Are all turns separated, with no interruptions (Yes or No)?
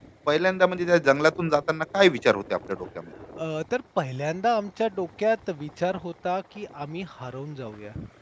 Yes